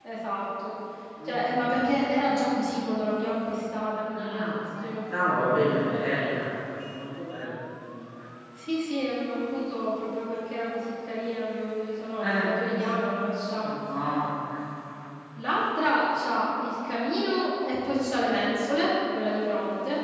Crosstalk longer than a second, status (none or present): present